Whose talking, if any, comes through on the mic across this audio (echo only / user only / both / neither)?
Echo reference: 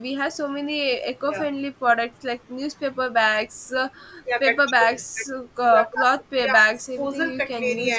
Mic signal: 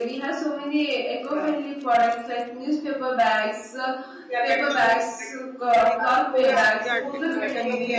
both